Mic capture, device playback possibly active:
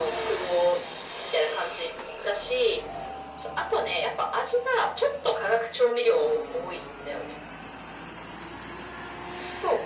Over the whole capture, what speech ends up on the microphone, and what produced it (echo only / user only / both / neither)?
echo only